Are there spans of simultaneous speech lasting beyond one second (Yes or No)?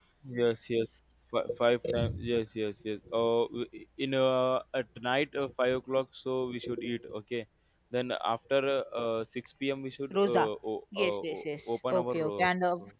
Yes